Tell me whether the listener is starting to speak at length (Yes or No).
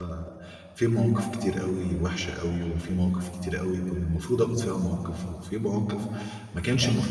No